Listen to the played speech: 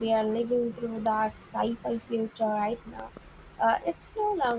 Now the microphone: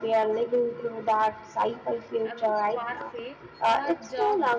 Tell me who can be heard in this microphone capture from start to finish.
both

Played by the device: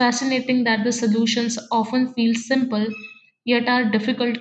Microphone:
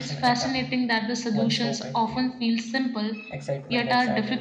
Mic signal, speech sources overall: both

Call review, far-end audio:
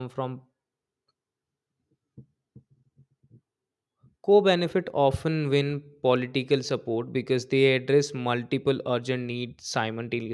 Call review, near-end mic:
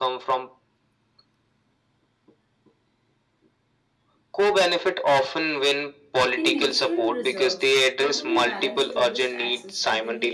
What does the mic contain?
both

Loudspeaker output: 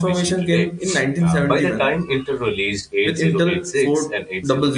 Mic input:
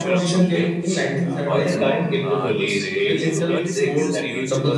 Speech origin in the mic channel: both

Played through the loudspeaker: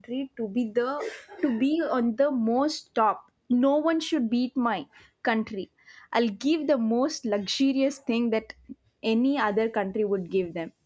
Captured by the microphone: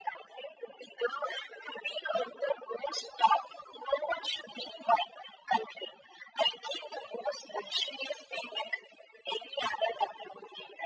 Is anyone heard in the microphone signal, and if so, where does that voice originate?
echo only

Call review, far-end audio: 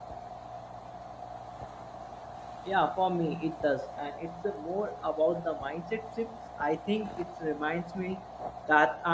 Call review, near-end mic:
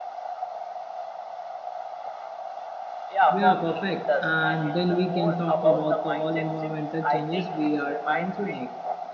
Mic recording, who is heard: both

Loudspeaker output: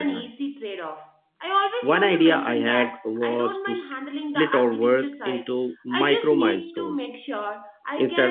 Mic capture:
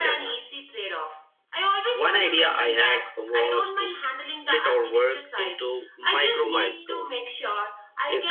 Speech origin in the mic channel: echo only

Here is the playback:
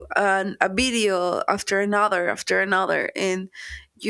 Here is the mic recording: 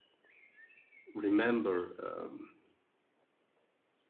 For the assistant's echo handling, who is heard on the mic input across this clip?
user only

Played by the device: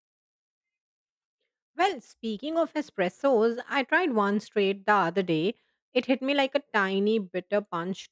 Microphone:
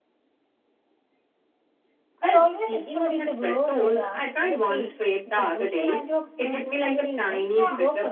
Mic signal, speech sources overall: both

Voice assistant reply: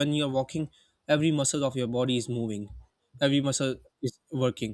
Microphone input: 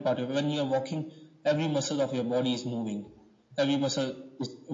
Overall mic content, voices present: echo only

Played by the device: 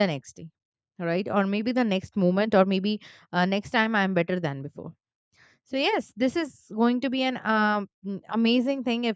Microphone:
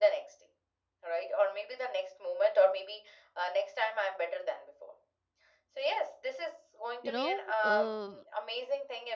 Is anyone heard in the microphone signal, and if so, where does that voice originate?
both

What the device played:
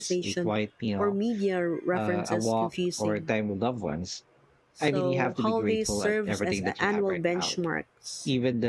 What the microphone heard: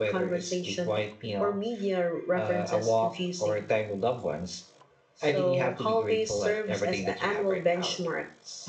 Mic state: echo only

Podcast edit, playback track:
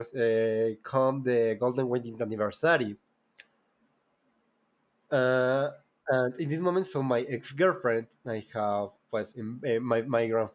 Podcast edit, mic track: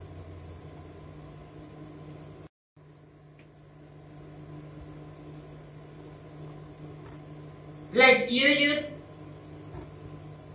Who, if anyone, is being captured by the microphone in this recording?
user only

